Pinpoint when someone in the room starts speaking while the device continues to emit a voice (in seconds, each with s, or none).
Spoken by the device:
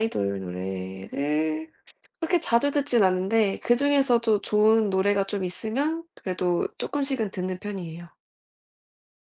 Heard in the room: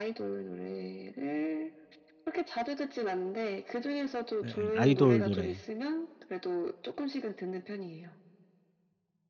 4.4 s